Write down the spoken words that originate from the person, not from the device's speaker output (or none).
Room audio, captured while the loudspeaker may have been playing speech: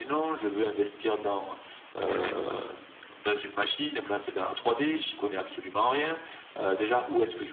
Mmh mh.